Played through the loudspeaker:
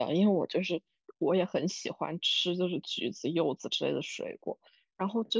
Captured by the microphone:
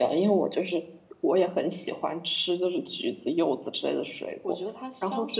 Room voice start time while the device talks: 4.4 s

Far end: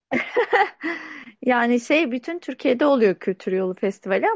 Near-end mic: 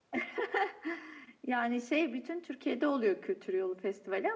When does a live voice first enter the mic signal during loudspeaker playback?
none

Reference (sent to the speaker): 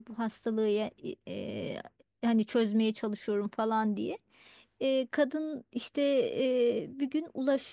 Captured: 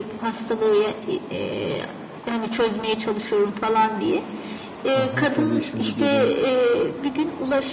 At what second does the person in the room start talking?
4.9 s

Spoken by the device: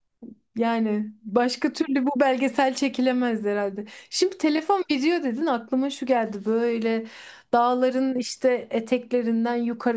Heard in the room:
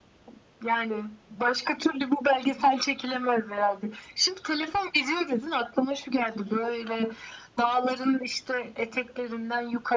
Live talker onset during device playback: none

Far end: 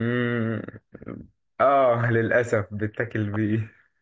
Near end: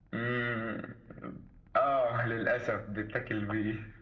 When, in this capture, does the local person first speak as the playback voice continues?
none

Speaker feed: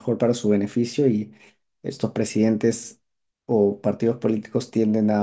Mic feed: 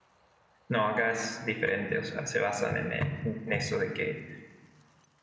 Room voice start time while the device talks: 0.7 s

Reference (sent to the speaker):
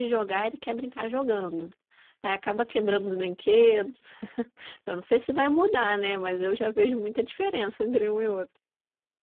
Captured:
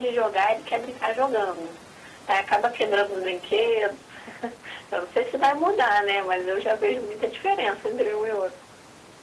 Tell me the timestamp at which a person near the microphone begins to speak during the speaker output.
none

